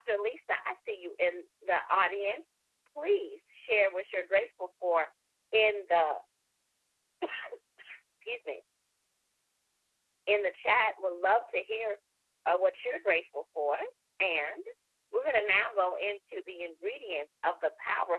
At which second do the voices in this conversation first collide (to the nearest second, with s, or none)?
none